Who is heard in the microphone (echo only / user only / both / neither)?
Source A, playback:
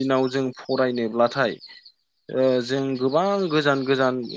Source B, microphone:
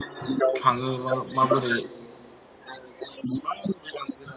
both